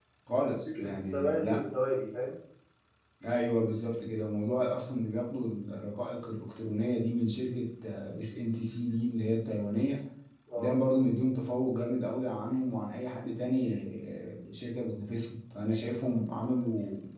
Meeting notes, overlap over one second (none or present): present